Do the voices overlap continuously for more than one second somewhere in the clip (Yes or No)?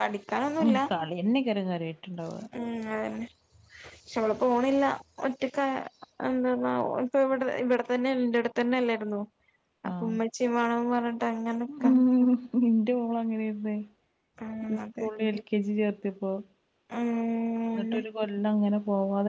No